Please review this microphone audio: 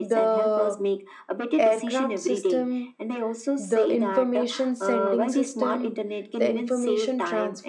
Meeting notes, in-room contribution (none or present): present